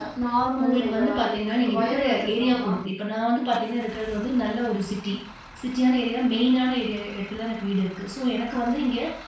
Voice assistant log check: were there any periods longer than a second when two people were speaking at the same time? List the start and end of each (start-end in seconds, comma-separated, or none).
0.6-2.7